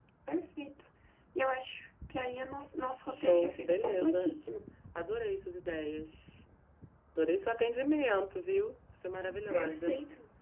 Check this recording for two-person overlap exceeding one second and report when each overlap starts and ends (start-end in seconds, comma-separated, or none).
3.1-4.4